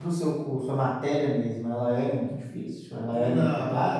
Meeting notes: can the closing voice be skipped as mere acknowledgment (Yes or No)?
No